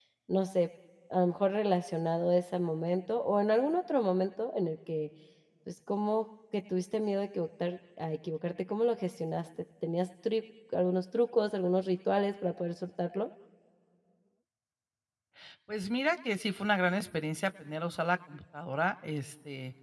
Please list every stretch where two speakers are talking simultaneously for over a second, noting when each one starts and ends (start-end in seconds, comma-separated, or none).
none